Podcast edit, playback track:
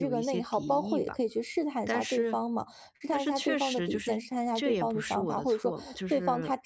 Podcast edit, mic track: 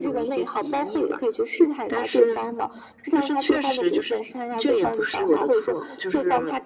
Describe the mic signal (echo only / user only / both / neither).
echo only